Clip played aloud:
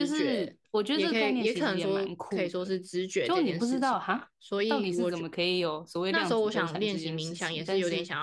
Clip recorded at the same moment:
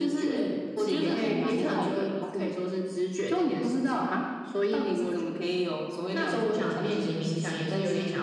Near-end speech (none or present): present